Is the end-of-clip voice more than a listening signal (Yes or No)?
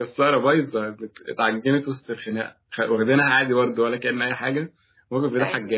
No